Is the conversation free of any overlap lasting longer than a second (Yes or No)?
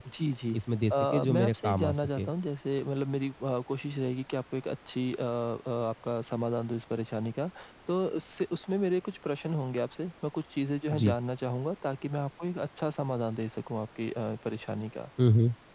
No